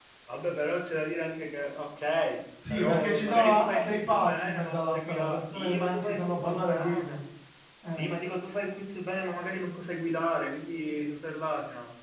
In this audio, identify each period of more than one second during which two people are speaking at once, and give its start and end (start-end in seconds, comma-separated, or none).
2.7-7.2